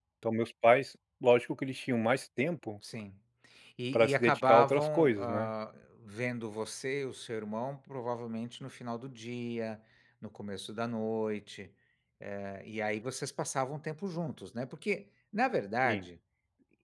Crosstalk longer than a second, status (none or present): present